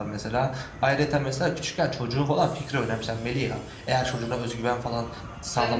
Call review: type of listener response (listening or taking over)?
taking over